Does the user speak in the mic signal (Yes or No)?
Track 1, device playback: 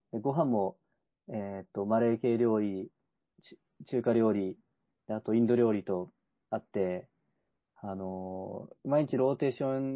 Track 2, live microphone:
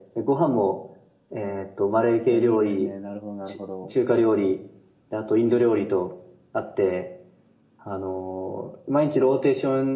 Yes